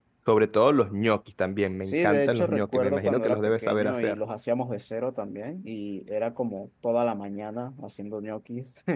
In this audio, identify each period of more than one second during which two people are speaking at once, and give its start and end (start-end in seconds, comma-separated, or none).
1.8-4.2